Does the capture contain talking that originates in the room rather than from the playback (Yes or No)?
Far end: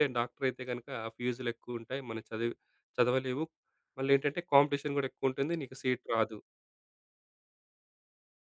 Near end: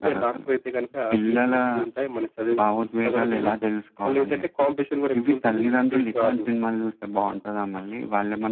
Yes